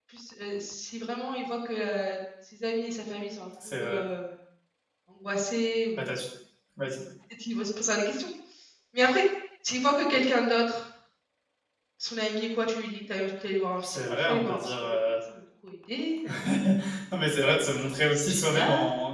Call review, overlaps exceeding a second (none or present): present